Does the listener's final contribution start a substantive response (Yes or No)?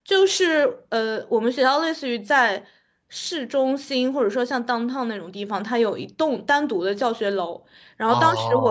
No